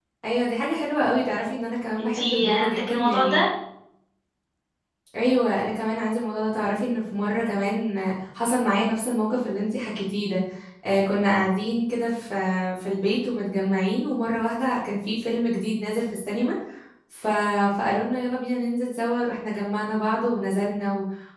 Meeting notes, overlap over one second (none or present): present